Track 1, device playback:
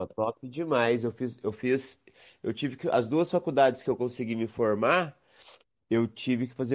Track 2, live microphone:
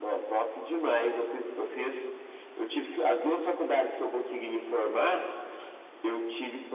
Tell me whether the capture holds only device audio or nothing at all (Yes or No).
Yes